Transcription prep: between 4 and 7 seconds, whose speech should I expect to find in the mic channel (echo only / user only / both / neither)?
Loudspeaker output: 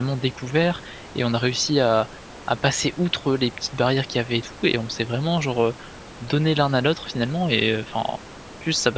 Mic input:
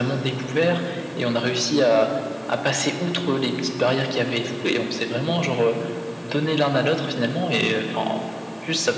echo only